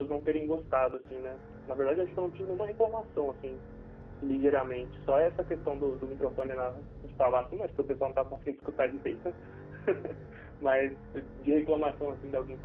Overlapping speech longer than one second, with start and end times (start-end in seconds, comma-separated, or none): none